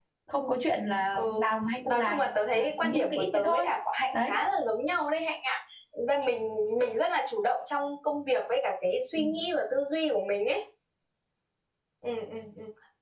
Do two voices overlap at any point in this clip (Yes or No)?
Yes